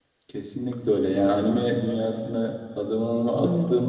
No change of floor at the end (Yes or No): Yes